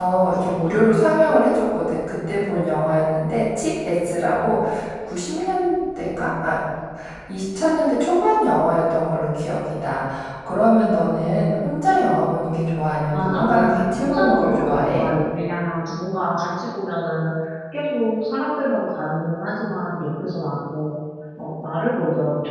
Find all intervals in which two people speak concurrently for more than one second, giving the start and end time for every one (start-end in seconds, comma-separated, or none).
13.1-15.1